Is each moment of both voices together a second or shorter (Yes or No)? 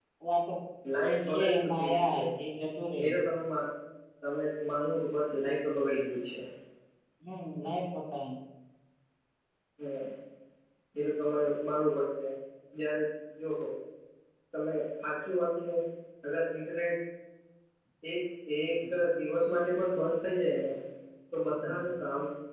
No